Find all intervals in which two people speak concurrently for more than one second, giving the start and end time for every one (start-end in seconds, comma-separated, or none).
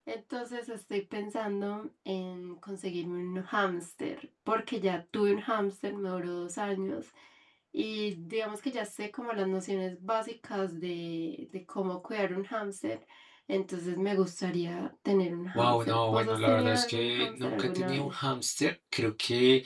15.5-18.1